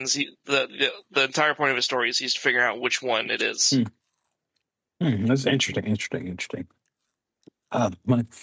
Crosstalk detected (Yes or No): No